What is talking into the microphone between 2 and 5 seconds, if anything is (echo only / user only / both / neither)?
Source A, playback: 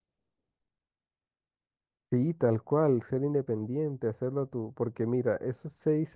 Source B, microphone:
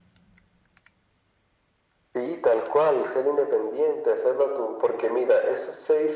echo only